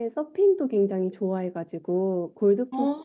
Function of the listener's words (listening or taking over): listening